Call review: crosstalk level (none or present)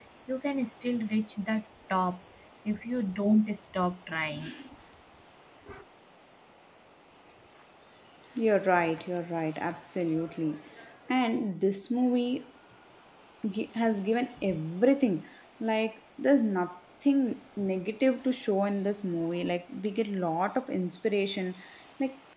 none